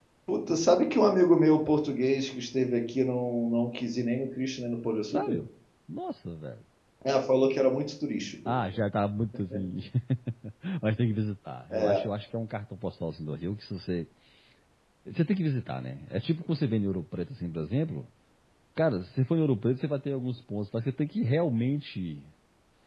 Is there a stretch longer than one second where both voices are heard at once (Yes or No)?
No